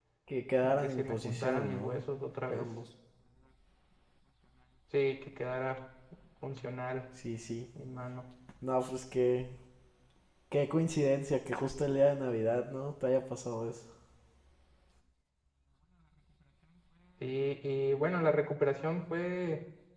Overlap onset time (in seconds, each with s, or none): 0.6 s